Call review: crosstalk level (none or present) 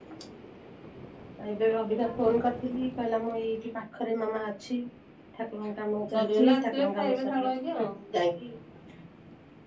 present